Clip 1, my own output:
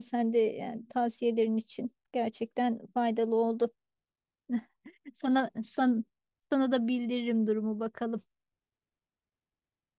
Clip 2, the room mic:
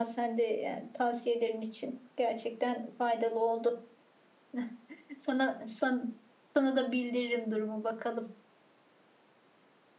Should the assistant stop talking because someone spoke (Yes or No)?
No